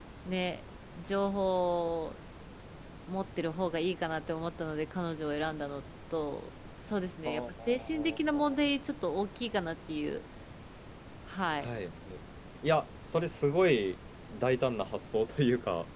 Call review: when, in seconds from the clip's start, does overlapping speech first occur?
7.2 s

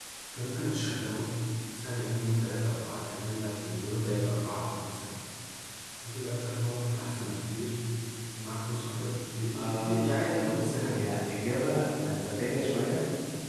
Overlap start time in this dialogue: 9.5 s

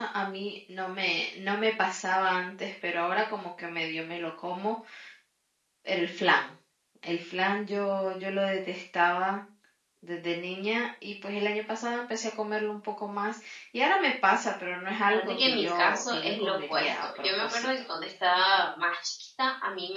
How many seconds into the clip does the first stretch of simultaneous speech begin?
15.0 s

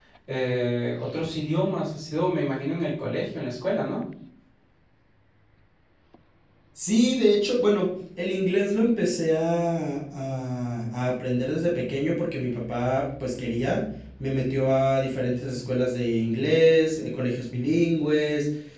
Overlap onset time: none

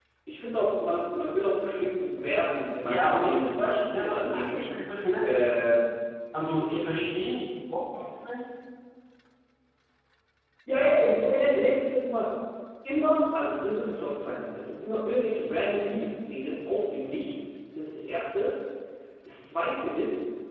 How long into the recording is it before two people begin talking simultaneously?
2.9 s

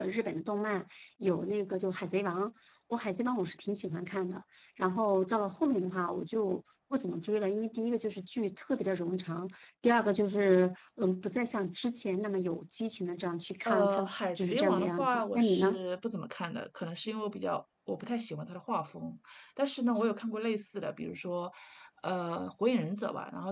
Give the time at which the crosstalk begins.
13.7 s

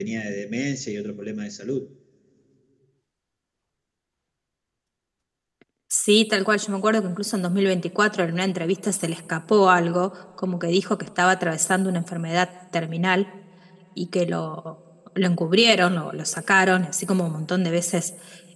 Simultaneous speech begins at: none

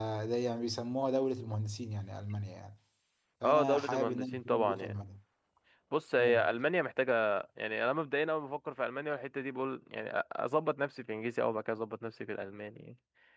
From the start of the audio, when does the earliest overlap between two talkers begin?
3.4 s

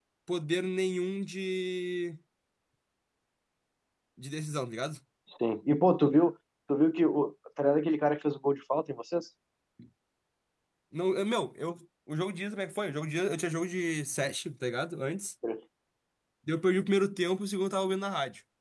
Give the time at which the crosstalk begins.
none

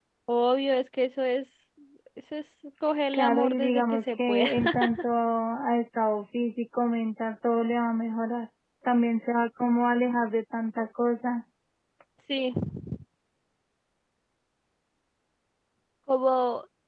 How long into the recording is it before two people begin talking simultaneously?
3.1 s

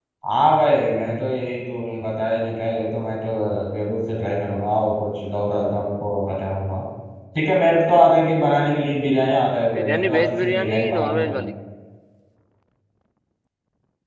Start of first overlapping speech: 9.7 s

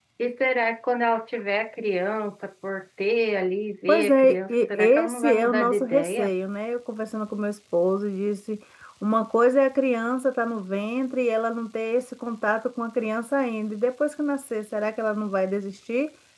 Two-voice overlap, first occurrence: 3.9 s

